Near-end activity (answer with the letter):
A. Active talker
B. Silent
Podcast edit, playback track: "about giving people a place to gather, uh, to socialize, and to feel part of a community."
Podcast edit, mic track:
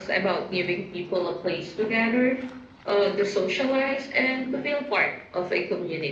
B